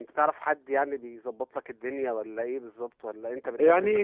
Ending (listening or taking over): taking over